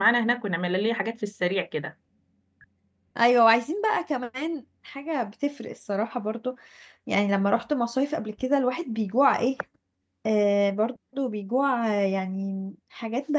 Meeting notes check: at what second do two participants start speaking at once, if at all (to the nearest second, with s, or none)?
none